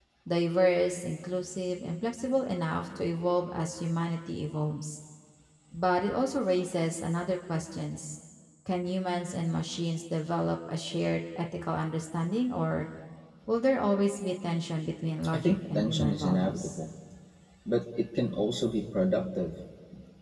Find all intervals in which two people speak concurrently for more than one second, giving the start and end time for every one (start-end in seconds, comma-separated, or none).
15.3-16.8